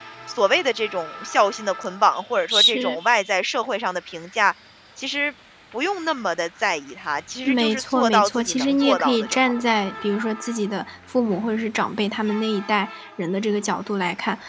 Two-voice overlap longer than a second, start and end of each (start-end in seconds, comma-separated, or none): 7.4-9.5